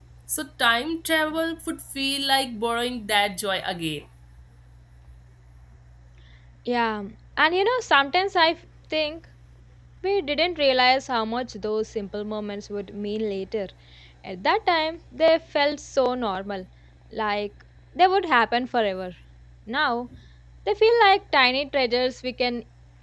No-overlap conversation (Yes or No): Yes